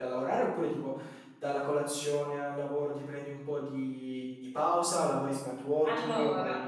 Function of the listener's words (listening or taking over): taking over